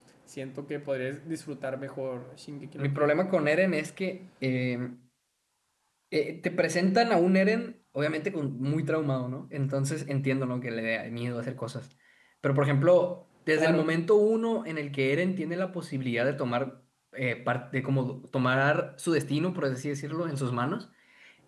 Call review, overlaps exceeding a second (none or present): none